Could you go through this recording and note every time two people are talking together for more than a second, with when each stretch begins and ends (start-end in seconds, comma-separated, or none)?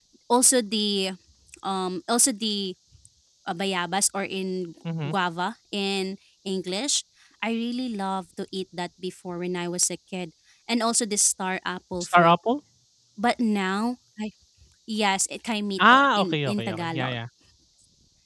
15.8-17.2